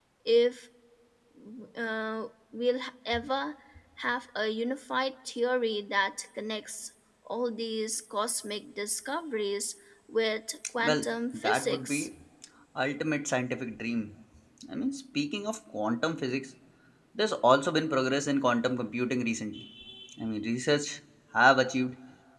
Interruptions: present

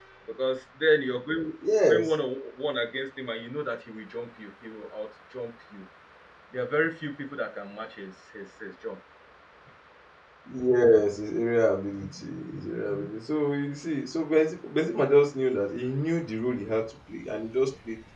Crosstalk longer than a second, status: none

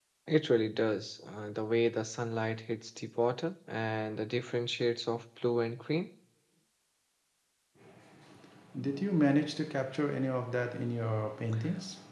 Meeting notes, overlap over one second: none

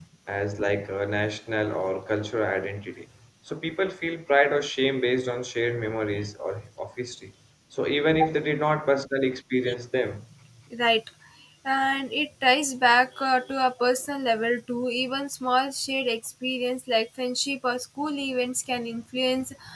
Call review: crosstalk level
none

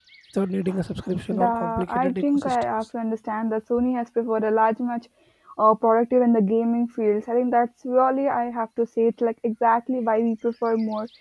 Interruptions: present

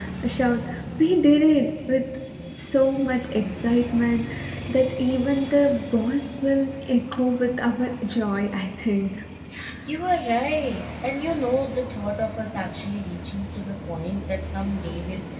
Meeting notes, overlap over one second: none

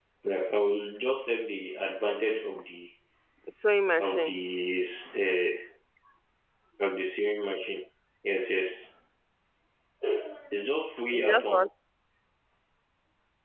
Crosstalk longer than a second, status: none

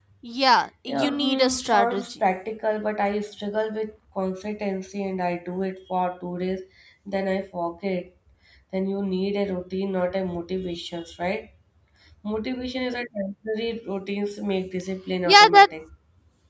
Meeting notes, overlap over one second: present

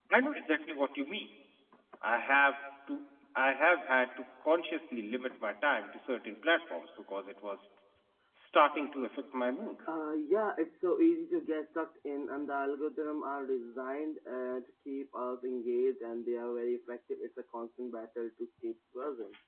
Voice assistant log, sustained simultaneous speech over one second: none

